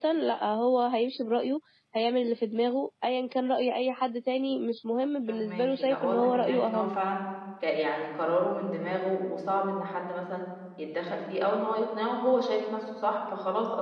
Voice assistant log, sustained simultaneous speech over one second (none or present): present